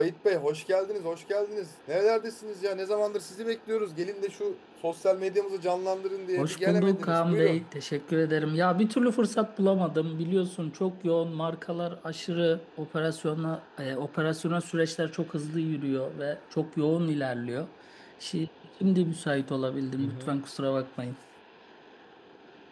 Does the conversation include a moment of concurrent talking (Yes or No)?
Yes